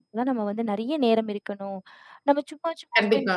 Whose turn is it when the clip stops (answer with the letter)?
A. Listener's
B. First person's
B